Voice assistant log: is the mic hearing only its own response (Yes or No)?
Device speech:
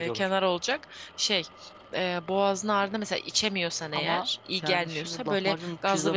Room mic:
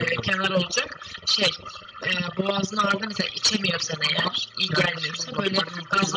Yes